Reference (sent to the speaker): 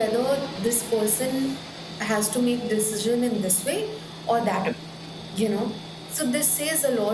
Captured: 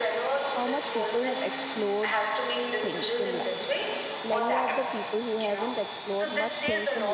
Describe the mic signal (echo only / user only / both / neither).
both